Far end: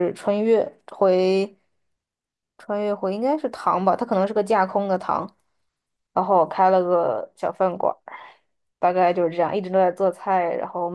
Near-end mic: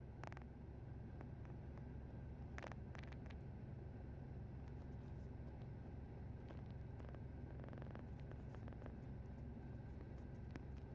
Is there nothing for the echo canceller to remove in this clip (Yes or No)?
Yes